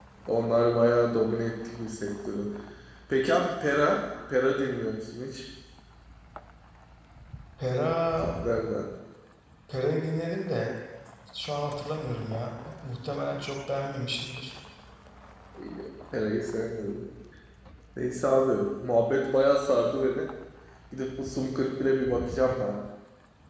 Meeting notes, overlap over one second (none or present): none